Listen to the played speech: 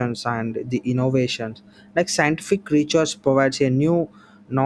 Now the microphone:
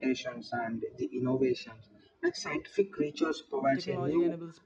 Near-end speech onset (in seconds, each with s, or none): 3.7 s